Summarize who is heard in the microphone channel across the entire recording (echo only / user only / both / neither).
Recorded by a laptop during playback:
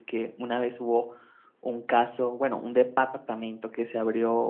user only